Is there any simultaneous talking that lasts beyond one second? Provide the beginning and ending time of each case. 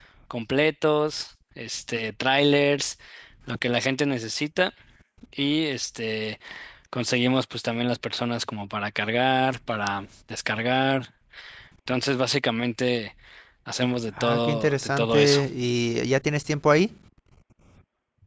14.2-15.4

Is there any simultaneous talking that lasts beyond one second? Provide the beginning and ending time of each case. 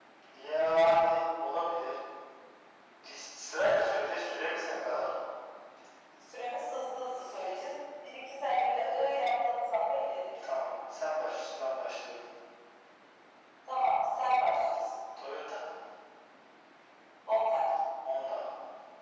none

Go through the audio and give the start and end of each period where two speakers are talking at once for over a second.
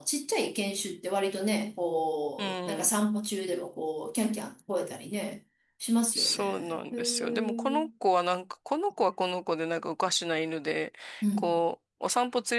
6.2-7.6

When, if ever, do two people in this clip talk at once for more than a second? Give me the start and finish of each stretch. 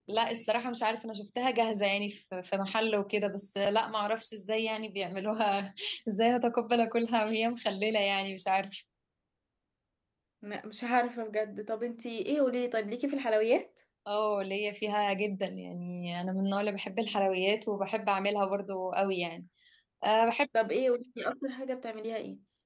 none

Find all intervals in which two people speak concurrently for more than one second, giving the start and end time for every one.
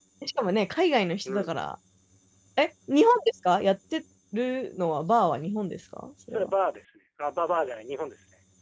none

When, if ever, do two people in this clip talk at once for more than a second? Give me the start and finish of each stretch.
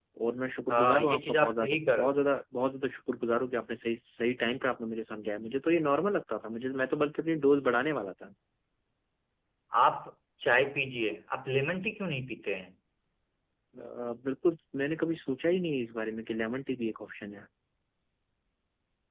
0.7-2.0

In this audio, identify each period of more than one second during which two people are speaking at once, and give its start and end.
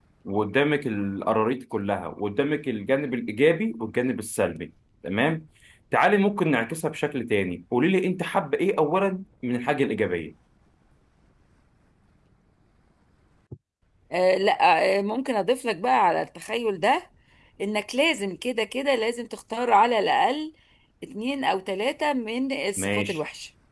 none

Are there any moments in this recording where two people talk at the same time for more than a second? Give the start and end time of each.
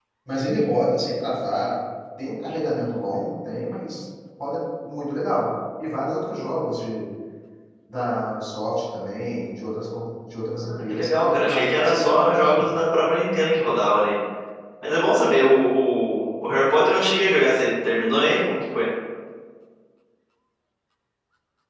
10.6-12.7

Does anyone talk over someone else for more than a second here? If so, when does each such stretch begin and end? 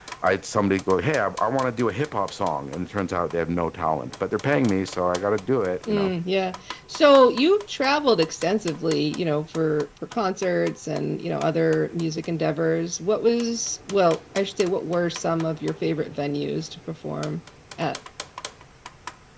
none

